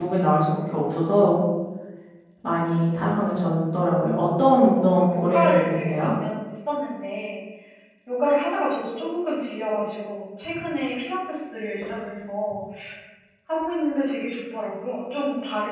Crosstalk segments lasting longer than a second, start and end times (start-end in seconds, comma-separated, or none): 4.8-6.1